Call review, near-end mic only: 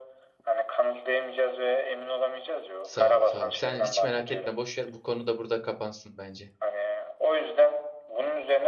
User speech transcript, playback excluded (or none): Sağ ol, sağ ol. Sen hiç merak etme, boş ver. Bu konu da burada kapansın bence.